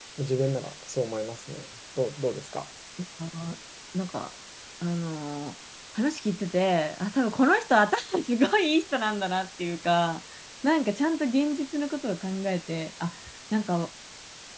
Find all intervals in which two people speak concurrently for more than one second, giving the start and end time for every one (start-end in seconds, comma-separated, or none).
none